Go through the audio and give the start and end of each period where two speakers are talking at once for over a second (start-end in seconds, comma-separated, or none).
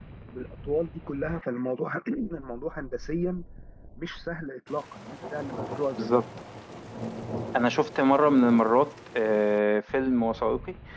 none